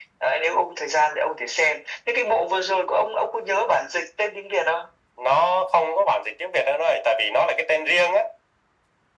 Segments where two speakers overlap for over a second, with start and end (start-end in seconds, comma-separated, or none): none